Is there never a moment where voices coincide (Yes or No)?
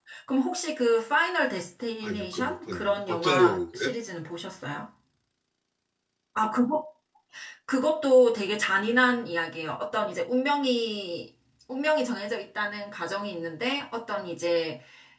No